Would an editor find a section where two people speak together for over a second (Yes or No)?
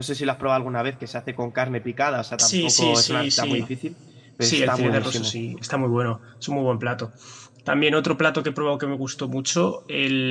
Yes